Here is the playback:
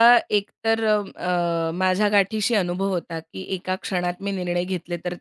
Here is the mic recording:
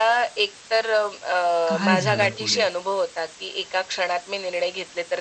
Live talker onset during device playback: 1.7 s

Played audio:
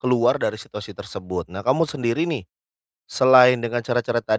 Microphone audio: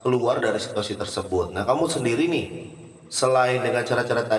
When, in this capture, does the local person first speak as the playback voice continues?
none

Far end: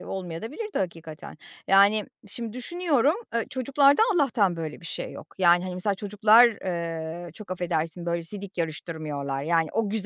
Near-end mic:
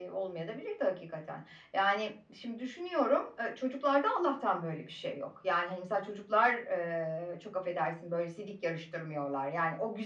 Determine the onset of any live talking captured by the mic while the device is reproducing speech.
none

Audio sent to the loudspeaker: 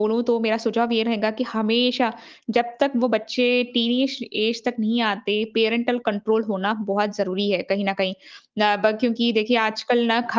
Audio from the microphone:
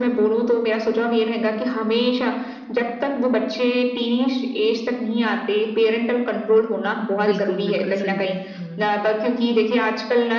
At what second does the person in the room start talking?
7.2 s

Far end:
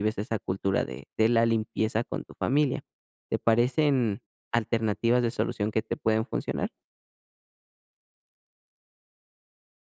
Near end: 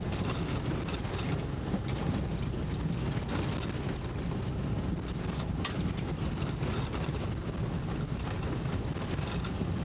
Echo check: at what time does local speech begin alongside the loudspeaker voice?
none

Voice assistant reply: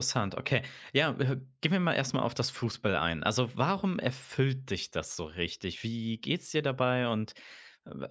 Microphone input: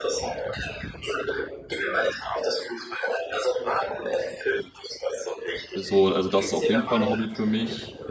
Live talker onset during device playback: 5.8 s

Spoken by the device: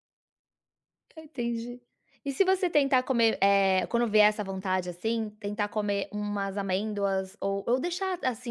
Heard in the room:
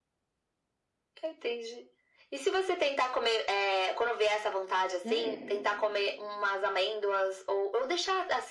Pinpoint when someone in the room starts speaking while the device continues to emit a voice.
5.0 s

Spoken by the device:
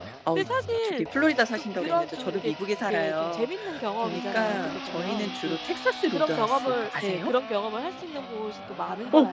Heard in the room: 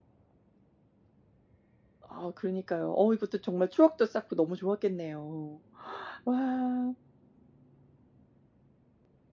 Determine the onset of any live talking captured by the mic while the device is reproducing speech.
2.1 s

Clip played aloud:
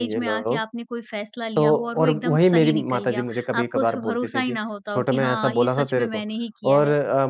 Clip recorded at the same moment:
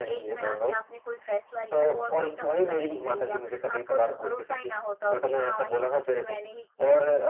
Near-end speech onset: none

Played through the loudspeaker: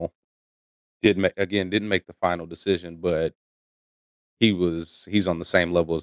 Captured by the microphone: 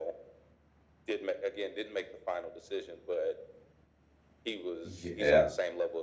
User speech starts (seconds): 4.8 s

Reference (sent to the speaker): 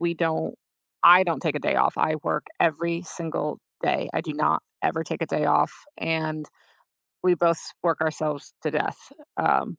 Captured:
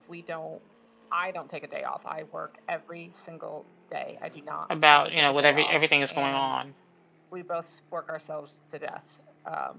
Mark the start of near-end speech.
4.7 s

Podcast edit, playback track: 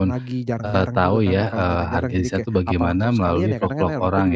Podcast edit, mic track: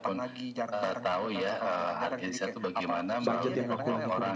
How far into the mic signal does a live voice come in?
3.2 s

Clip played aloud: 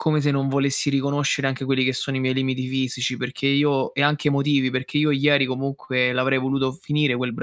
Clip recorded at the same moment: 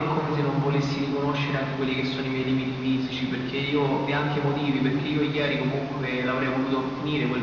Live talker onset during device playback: none

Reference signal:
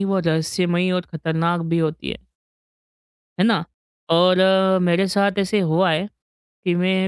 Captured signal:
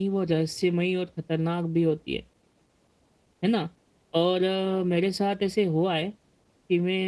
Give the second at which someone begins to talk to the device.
none

